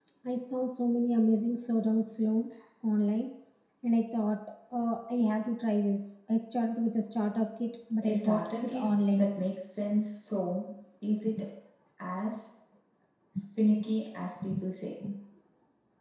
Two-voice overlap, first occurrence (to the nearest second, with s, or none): 8 s